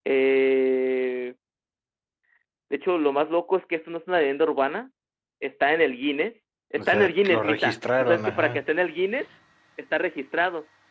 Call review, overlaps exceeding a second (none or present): present